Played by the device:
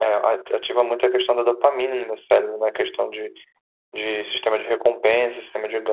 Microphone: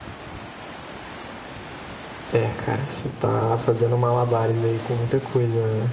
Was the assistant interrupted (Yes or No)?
Yes